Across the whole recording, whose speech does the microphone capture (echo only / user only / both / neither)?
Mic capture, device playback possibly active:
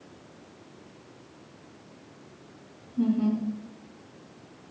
user only